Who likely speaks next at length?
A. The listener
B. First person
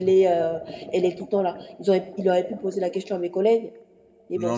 A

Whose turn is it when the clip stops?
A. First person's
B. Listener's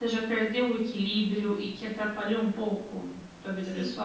B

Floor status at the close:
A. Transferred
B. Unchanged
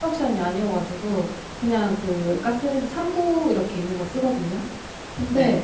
B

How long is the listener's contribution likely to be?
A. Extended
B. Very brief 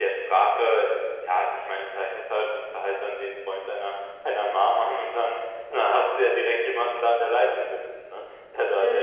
A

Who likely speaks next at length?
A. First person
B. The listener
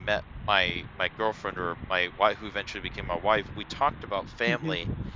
A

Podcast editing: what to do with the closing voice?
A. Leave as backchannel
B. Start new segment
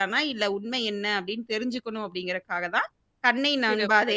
A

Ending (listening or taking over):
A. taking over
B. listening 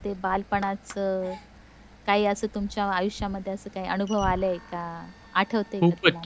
A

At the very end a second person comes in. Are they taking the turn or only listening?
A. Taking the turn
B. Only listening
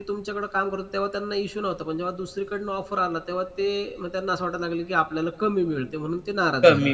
A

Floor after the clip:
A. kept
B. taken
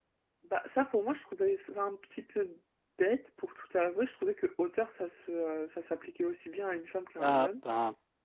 B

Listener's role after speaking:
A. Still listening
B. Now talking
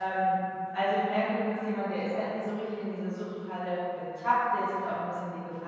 A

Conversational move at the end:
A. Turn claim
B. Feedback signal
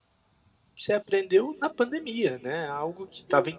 B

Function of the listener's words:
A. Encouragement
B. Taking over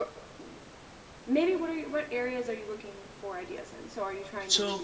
A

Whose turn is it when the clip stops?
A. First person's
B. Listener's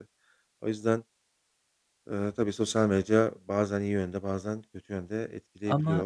B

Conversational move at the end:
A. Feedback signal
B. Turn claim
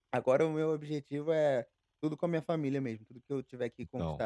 A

